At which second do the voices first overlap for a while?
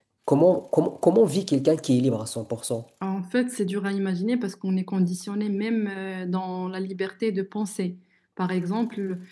none

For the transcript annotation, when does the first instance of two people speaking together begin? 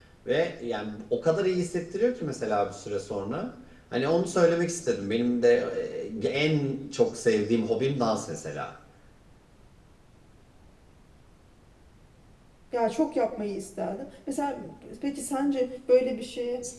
none

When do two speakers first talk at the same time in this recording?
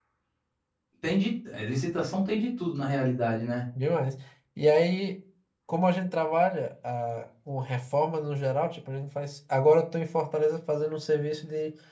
none

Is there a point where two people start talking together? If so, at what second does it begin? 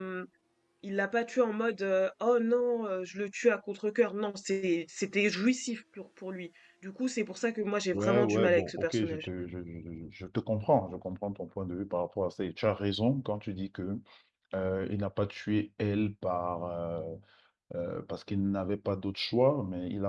7.9 s

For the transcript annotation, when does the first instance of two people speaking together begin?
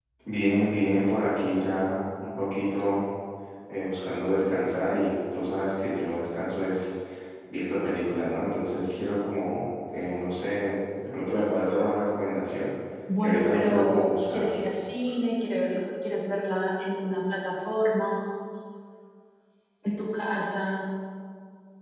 13.2 s

